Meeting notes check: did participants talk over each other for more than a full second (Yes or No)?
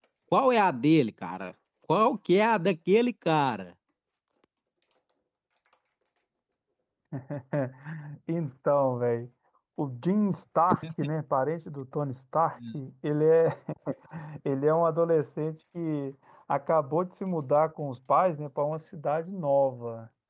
No